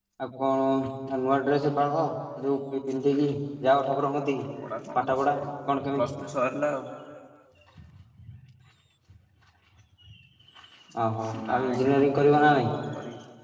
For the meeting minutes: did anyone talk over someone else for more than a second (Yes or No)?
Yes